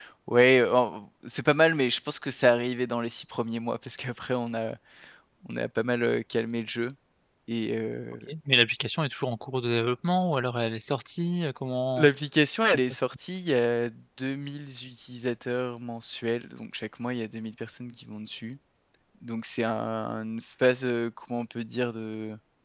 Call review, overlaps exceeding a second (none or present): none